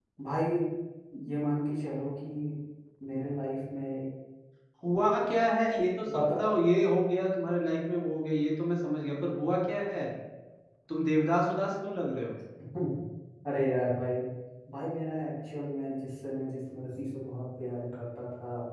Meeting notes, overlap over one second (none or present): none